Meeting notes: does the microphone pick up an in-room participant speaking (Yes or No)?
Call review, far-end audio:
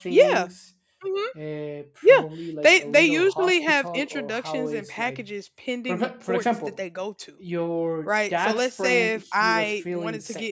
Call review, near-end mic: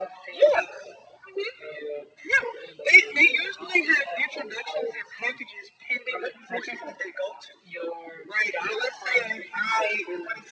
No